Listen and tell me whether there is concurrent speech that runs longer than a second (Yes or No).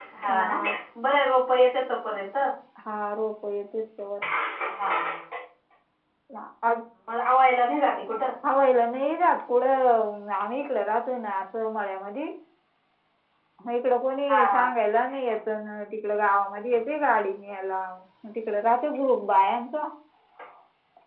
No